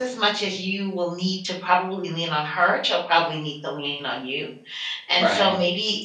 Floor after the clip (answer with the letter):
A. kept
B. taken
A